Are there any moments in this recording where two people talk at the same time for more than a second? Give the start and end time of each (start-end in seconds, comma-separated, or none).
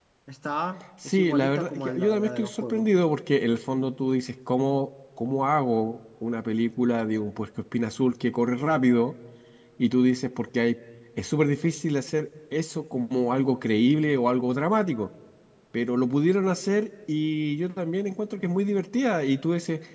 1.1-2.9